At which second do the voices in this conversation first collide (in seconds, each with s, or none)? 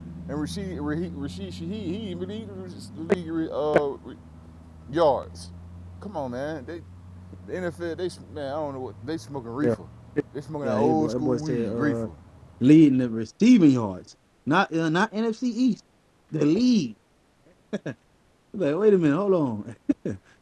10.6 s